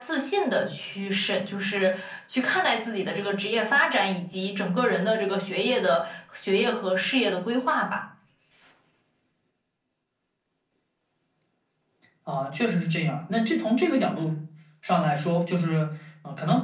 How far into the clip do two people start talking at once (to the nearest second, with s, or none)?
none